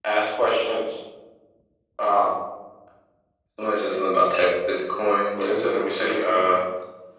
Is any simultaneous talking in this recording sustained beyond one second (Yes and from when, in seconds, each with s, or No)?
Yes, from 5.3 s